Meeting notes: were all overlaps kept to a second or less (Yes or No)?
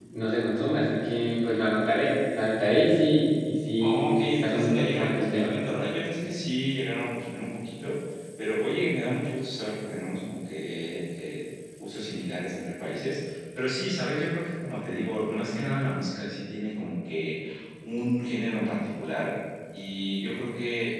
No